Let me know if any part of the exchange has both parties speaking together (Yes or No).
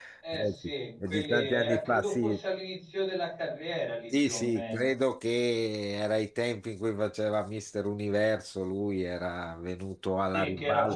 Yes